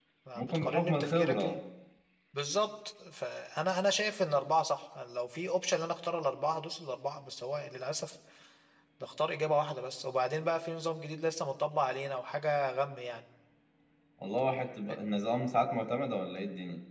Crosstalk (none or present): present